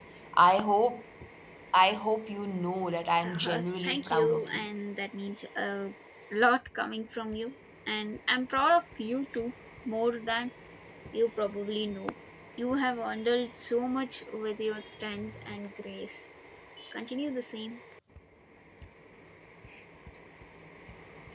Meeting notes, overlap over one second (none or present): present